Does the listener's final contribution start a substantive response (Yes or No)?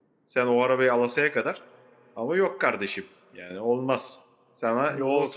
Yes